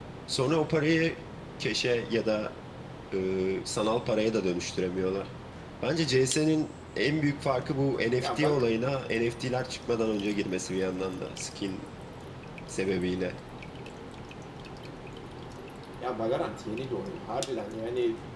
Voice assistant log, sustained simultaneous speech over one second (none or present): none